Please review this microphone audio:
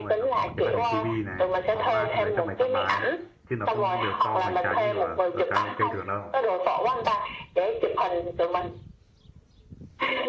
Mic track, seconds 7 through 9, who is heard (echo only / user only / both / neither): echo only